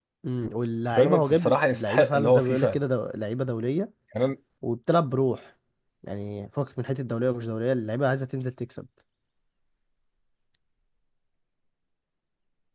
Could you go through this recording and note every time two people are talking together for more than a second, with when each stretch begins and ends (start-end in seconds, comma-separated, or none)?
1.0-2.8